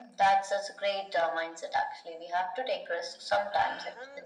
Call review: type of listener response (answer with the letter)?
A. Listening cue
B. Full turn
B